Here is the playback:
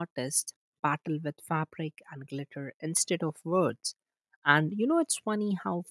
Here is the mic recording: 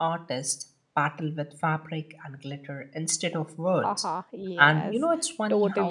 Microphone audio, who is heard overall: both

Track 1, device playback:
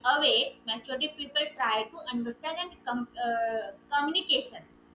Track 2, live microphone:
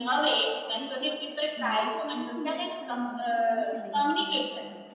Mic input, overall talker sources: both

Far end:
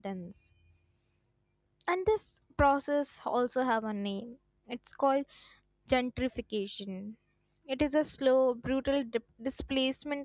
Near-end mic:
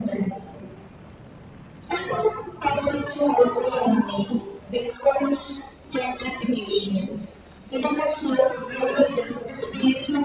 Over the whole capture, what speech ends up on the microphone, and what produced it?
echo only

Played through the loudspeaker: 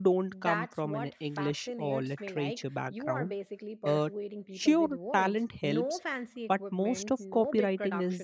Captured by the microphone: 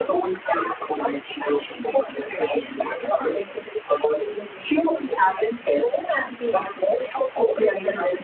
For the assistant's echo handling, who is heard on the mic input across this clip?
echo only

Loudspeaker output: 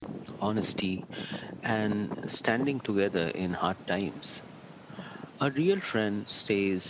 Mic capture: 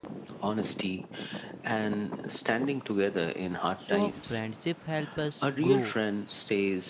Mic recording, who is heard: both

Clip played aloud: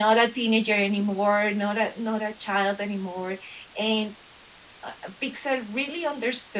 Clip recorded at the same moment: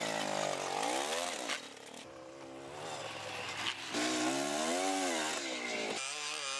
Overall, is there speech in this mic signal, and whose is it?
neither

